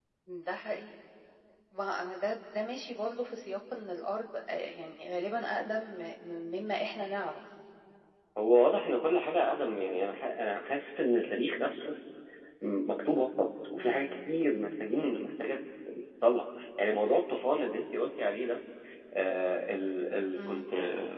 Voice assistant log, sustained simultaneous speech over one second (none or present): none